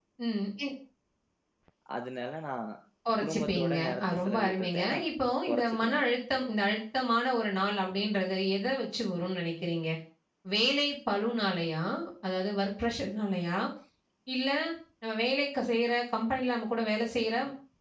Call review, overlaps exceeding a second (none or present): present